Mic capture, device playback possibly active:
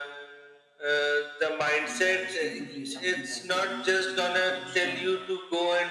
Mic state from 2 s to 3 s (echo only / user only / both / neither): both